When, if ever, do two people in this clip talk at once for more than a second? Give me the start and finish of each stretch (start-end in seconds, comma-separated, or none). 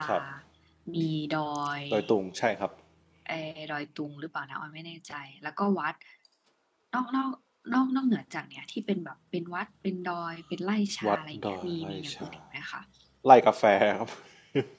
11.1-12.3